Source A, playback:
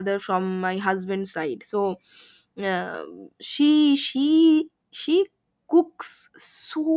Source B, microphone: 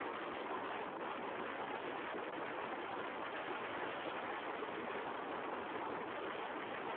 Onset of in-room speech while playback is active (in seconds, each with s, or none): none